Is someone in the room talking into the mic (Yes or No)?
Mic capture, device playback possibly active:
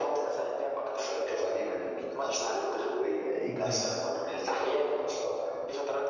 Yes